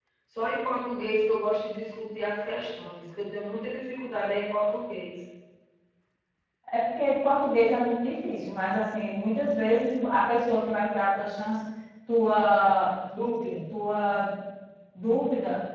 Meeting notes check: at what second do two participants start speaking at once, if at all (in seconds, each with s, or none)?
none